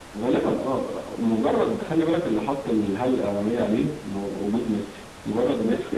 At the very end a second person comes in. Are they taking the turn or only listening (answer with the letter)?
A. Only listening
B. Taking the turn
A